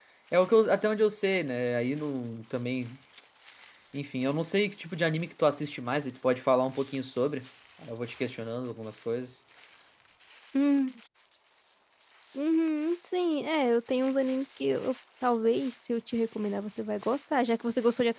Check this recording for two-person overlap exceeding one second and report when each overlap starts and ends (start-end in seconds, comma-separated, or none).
none